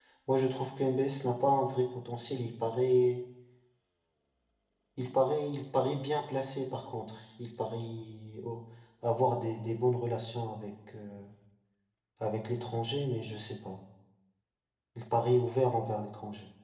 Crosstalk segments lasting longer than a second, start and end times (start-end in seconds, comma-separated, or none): none